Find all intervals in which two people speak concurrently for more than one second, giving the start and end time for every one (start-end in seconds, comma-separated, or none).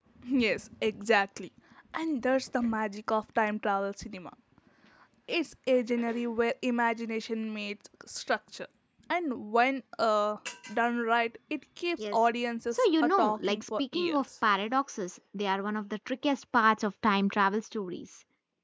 12.7-14.2